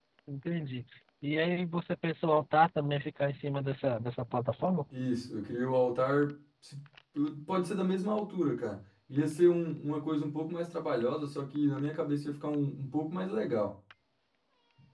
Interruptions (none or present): none